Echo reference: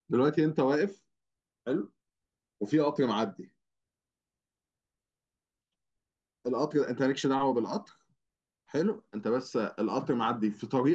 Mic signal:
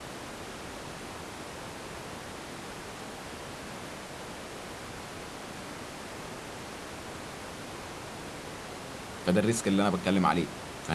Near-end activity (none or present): present